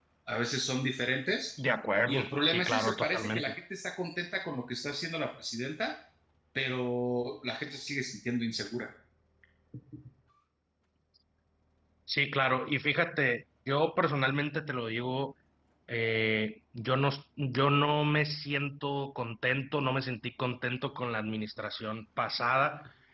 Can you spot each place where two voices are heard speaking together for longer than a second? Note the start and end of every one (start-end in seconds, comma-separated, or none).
2.0-3.5